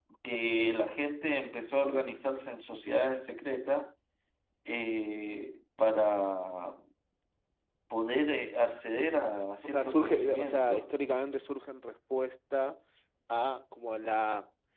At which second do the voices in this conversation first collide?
9.6 s

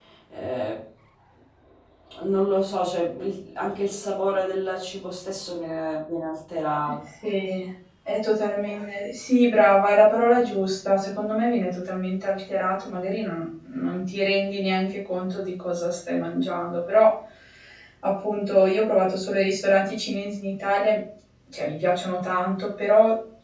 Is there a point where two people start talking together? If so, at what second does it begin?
none

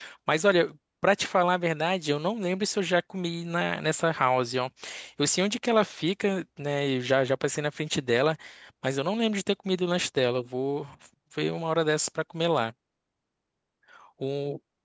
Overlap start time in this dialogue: none

